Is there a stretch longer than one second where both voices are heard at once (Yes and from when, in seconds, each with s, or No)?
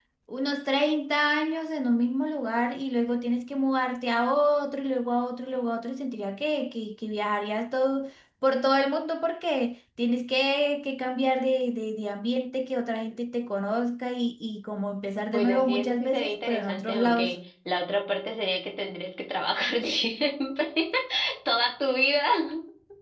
Yes, from 15.3 s